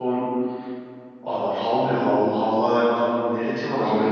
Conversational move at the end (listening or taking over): listening